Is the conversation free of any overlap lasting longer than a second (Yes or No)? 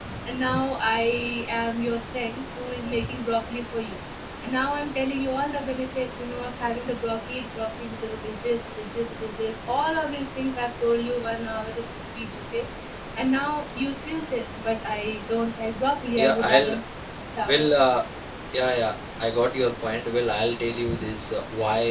Yes